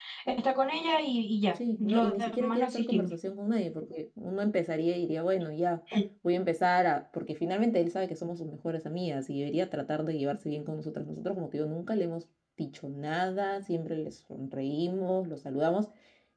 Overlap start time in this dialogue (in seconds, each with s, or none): 1.8 s